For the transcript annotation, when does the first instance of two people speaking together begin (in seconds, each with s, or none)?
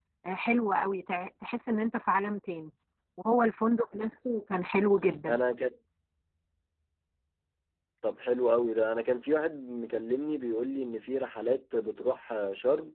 none